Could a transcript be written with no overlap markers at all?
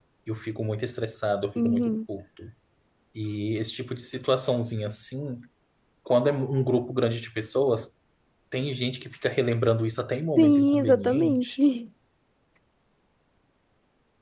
No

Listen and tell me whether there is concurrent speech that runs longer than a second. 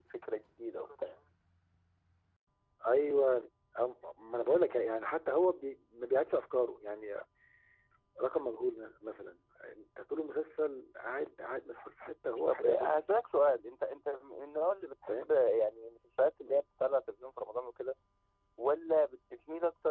No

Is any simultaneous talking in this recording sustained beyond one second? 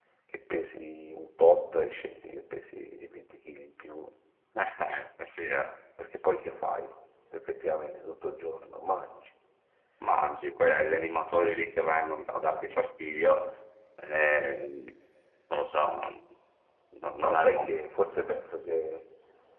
No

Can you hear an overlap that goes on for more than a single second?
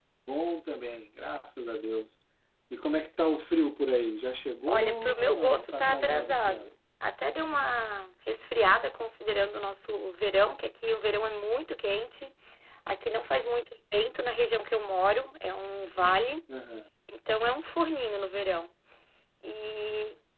Yes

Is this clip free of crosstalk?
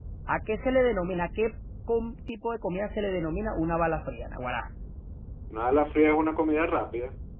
Yes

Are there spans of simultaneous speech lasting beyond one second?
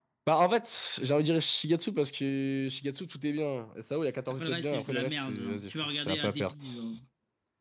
Yes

